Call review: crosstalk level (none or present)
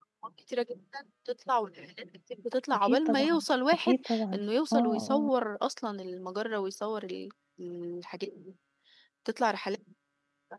present